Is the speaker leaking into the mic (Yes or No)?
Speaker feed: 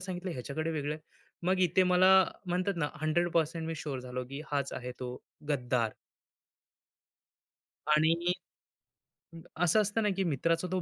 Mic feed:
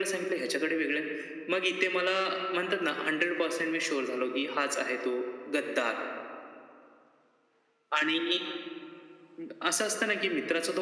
Yes